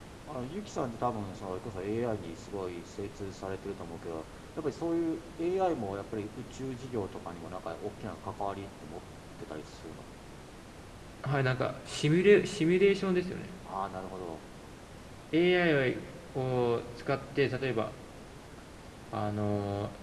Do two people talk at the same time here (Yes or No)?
No